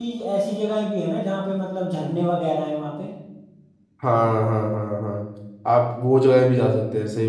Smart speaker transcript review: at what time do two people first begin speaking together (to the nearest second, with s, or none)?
none